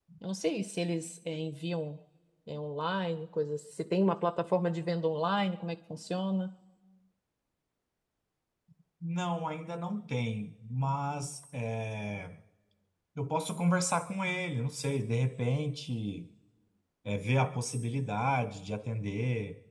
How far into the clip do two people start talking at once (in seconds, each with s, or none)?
none